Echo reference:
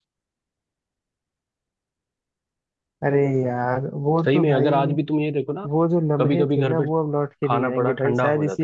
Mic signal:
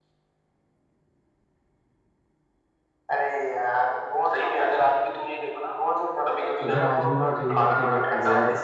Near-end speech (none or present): present